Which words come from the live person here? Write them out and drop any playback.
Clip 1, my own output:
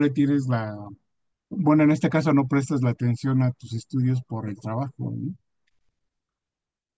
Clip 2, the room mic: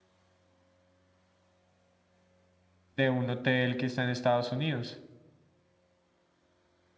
de un hotel que está en Estados Unidos.

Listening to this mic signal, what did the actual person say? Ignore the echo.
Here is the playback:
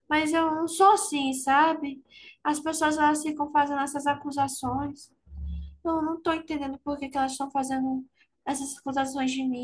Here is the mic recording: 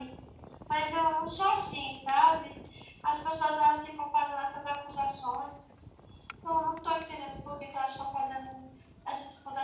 none

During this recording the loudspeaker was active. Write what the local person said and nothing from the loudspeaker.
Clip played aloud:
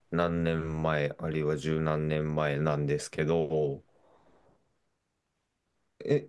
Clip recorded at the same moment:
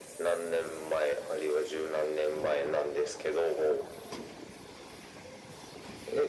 none

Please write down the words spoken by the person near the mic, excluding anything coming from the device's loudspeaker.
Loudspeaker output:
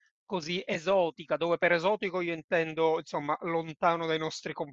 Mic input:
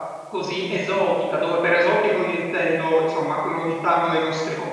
none

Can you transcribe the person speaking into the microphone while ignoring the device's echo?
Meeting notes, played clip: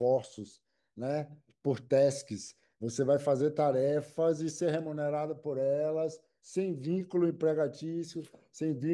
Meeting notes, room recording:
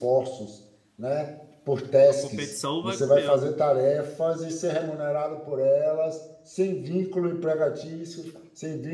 a competição vai comendo.

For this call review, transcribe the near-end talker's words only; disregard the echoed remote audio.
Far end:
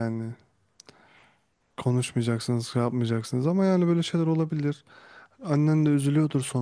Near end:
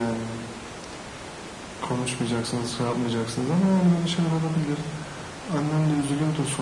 none

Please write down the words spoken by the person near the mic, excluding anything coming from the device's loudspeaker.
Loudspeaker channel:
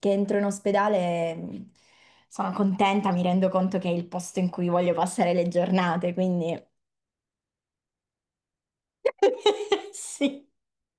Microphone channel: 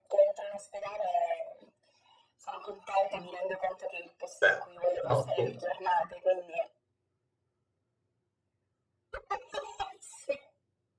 Beh, però tu

